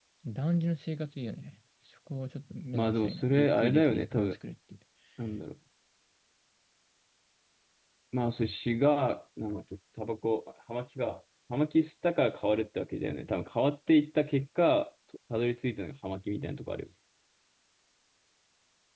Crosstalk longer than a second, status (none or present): present